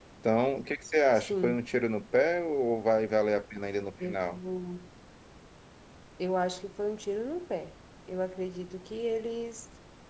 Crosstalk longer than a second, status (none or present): none